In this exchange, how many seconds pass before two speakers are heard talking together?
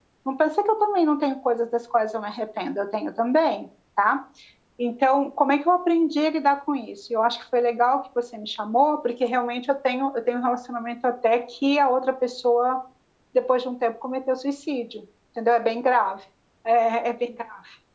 none

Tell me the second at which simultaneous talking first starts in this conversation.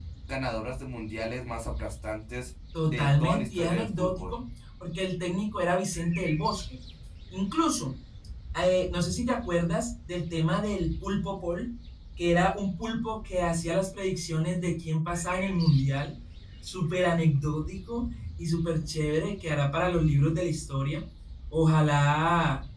3 s

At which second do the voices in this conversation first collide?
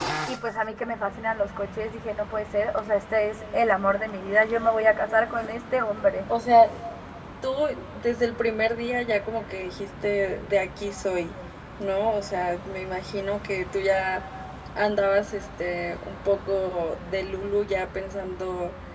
none

